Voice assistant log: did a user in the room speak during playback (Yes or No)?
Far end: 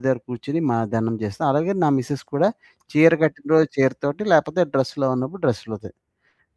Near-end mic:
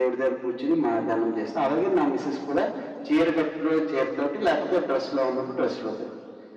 No